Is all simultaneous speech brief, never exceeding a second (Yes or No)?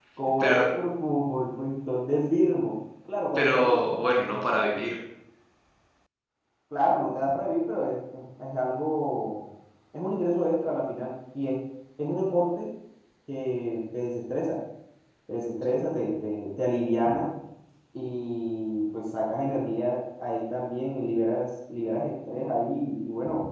No